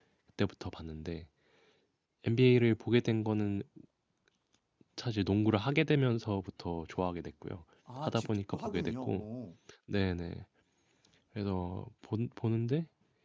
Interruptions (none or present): present